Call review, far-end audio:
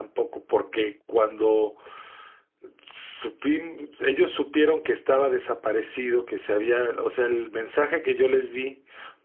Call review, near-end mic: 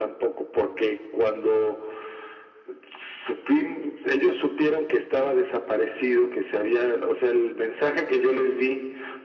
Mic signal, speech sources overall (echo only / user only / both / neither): echo only